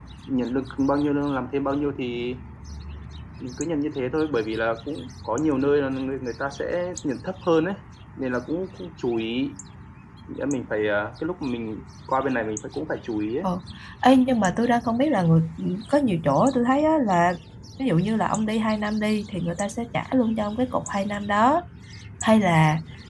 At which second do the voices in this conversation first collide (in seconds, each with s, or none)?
none